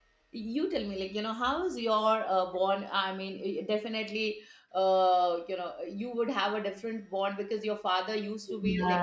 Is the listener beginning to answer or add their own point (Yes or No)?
Yes